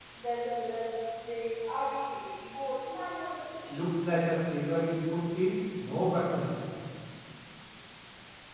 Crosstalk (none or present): none